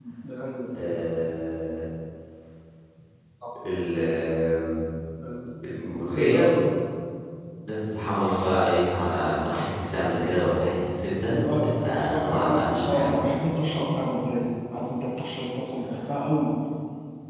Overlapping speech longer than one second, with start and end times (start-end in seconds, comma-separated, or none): 11.2-13.2